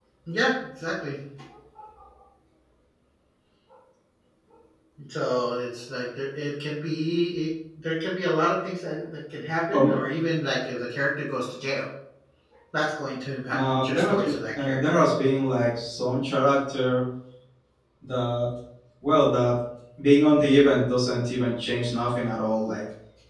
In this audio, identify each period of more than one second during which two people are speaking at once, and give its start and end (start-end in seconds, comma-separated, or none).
13.5-15.0